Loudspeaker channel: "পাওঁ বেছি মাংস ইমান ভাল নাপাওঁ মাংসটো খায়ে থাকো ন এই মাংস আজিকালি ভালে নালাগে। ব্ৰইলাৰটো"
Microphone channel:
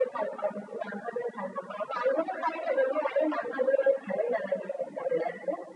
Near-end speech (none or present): none